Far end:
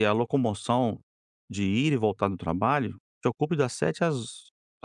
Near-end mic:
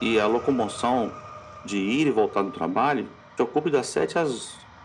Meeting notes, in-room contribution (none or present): none